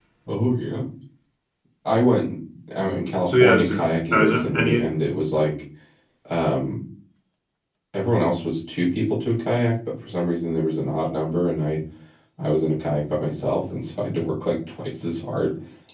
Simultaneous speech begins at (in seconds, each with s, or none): 3.3 s